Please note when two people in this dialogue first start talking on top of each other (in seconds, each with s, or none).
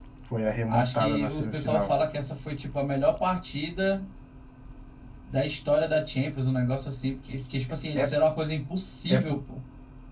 0.7 s